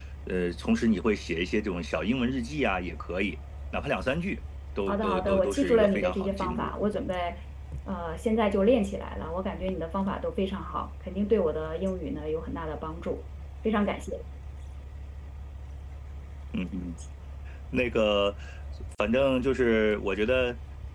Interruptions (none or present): present